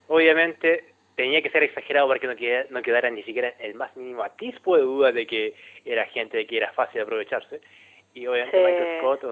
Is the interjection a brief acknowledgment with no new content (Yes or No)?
Yes